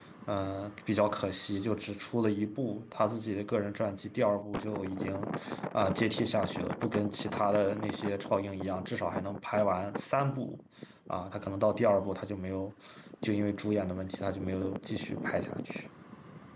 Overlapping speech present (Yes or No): No